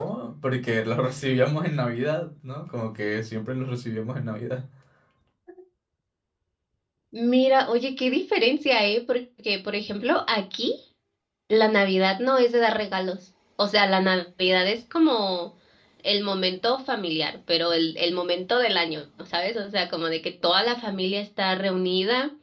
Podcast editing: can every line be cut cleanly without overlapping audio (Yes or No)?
Yes